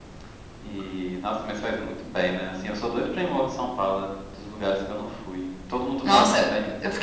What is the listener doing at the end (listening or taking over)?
taking over